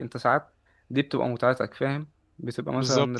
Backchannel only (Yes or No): Yes